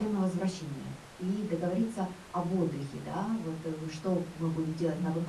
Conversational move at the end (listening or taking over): listening